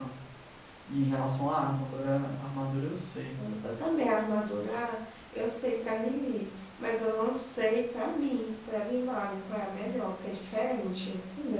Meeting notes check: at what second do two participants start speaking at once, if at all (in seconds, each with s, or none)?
none